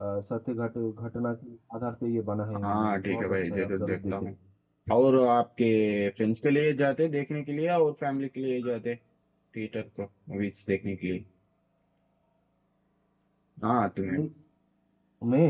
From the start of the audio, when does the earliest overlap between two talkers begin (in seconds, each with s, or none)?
2.5 s